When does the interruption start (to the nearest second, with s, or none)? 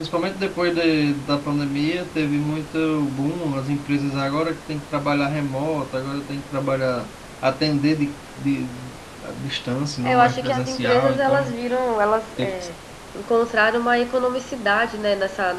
10 s